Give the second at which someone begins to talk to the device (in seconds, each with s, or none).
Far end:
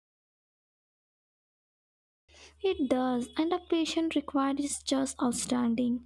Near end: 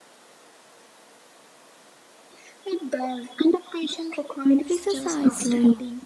4.6 s